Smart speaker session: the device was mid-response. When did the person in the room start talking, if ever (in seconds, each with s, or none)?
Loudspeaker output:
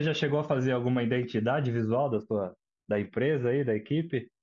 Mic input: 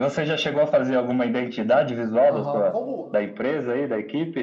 2.2 s